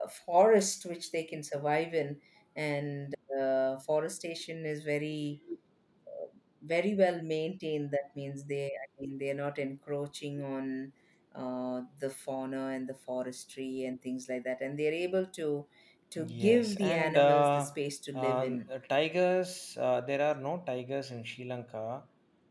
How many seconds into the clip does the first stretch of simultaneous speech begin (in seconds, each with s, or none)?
16.2 s